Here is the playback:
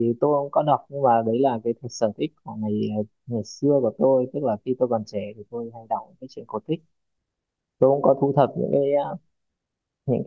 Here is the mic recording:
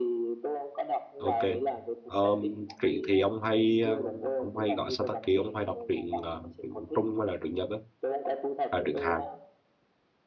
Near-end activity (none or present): present